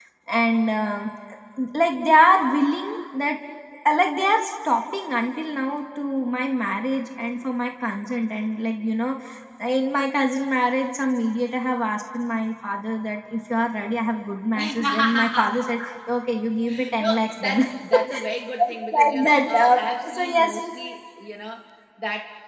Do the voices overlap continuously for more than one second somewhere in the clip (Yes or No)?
Yes